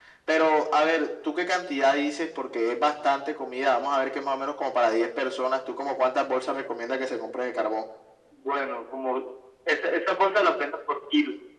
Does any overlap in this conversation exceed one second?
No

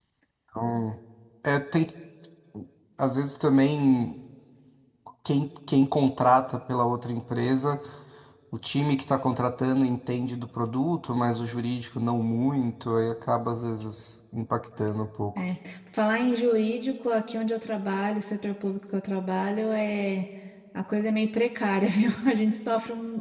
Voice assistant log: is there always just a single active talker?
Yes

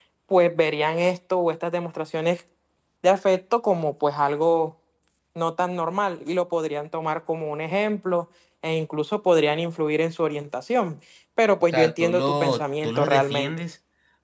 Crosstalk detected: Yes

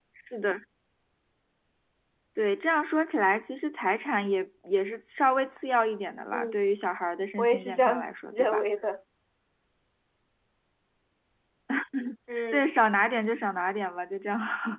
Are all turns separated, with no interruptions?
No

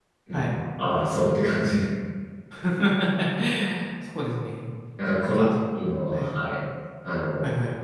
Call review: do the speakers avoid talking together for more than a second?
Yes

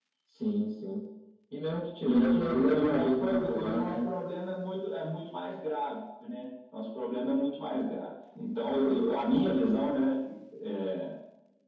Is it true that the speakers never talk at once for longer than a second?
No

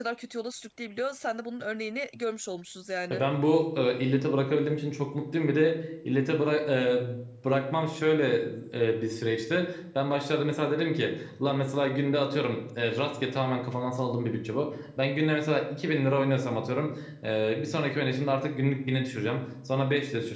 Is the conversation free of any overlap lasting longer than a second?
Yes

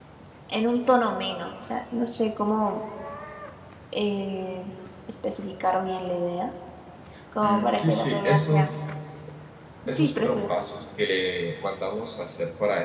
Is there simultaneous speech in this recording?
Yes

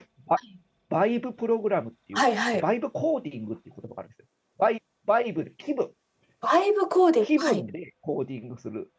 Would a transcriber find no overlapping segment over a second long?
Yes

